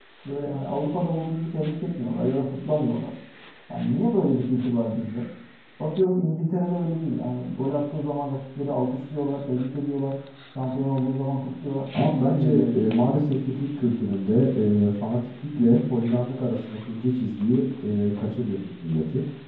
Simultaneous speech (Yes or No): Yes